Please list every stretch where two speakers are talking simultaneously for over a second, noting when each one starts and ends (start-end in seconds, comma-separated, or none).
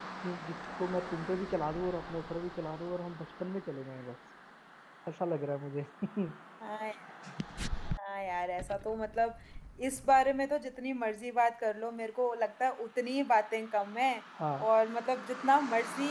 none